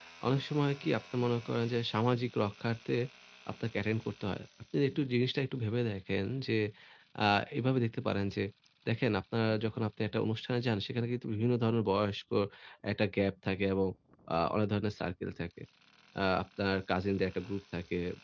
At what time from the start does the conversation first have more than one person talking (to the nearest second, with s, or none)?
none